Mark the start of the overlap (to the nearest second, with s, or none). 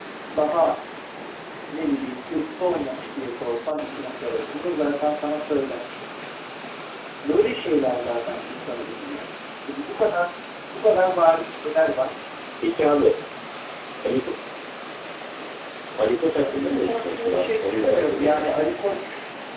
16 s